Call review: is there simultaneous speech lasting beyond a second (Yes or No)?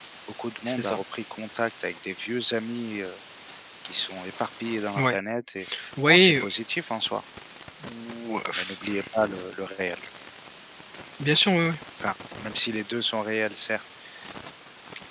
No